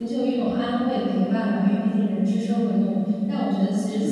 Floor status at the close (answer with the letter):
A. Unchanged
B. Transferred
A